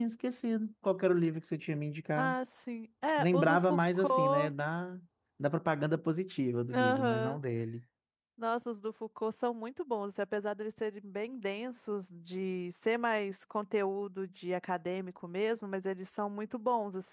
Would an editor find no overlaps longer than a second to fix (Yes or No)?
No